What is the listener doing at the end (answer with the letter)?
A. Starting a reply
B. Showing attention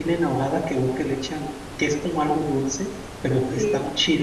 B